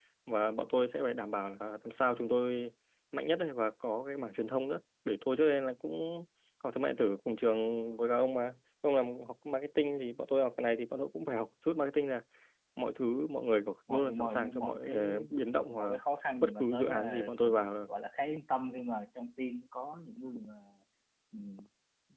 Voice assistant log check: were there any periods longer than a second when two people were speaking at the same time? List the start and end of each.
13.9-15.1, 16.4-17.7

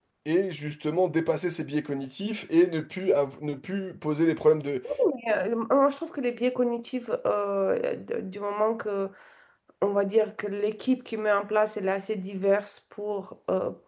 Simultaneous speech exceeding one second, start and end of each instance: none

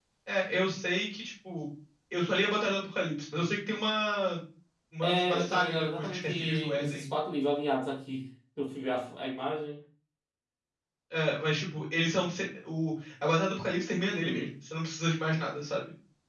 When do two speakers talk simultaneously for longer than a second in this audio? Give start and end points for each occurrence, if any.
5.0-7.0

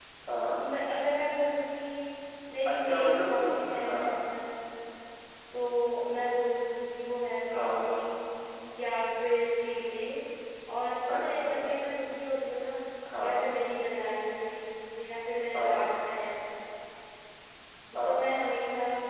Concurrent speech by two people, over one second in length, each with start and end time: 2.6-4.3

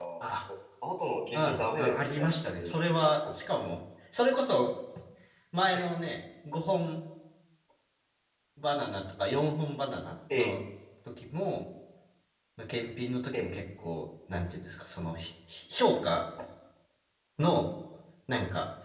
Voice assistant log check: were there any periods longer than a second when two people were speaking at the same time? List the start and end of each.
1.3-3.1

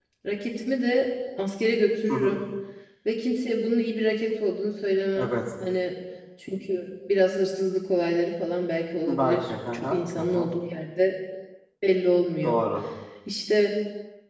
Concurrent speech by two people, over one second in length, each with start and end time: 9.1-10.5

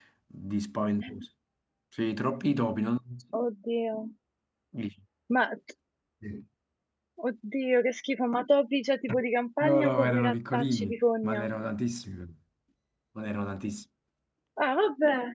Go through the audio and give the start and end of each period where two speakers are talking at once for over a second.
9.6-11.5

